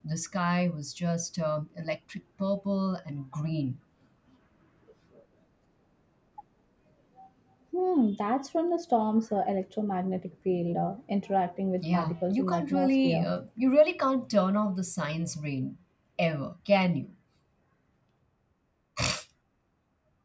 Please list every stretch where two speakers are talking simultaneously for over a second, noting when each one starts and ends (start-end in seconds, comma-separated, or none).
11.8-13.3